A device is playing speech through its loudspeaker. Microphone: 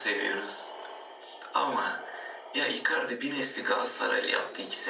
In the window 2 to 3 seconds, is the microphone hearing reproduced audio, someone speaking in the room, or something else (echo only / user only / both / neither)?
echo only